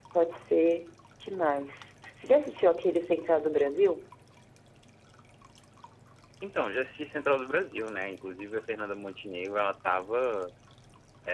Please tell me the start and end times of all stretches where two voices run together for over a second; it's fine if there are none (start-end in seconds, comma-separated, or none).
none